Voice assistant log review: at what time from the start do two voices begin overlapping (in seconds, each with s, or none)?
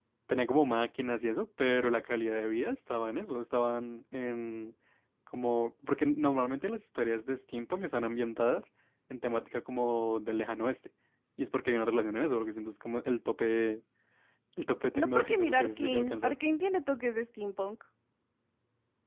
14.9 s